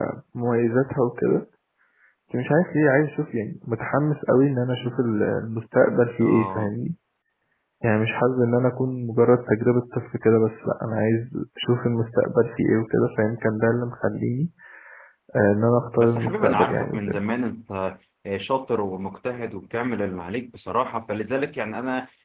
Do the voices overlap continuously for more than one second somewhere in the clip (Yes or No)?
Yes